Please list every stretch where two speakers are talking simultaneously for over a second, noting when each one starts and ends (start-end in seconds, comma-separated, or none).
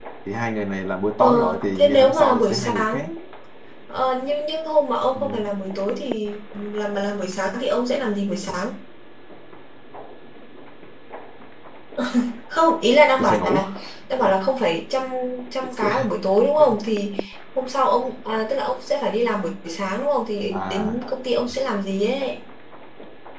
1.2-3.1